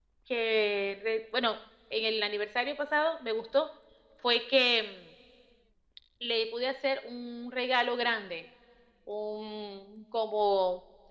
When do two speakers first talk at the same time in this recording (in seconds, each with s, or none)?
none